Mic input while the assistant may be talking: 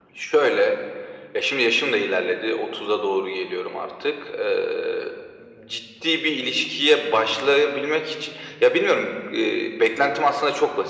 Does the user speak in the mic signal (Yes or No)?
No